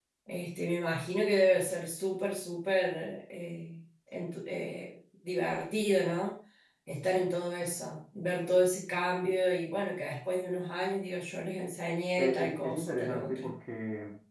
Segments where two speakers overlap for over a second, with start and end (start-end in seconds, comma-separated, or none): 12.2-13.5